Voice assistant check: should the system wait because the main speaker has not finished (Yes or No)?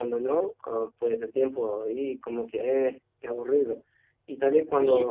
Yes